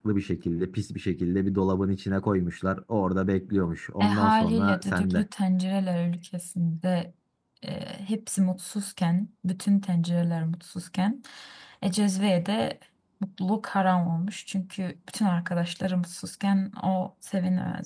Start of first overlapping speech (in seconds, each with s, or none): 4.0 s